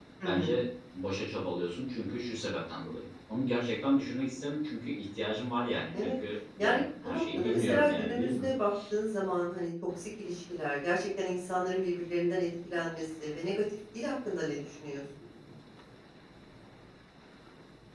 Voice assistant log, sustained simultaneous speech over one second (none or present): present